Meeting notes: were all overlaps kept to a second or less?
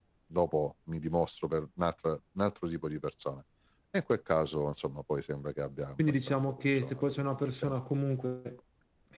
No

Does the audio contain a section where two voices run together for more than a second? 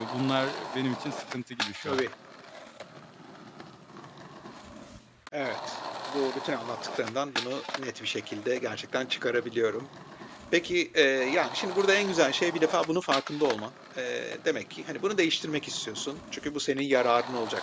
No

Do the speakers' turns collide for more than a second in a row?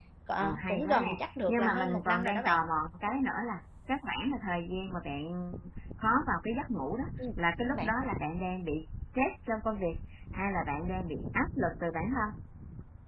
Yes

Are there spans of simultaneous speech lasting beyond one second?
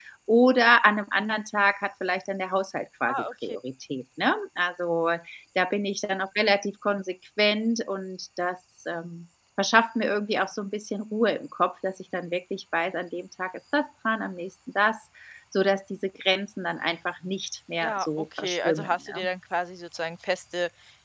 Yes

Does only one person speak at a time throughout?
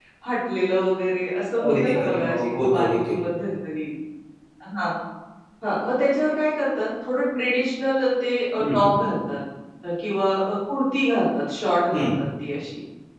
No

